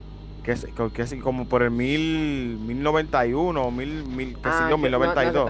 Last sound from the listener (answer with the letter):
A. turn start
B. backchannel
A